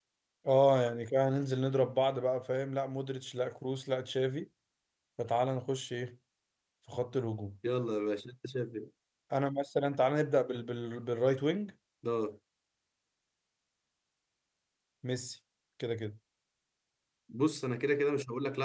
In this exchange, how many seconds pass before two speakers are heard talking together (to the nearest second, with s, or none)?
none